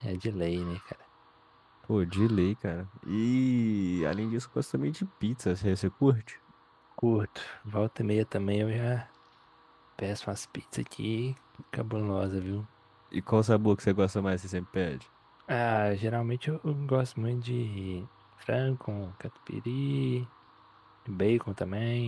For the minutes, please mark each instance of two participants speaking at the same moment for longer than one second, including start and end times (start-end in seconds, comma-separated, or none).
none